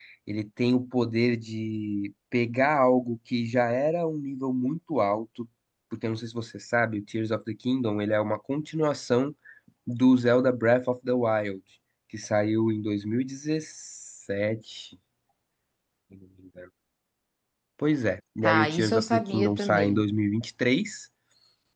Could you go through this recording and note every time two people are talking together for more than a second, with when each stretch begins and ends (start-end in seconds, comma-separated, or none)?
18.4-20.0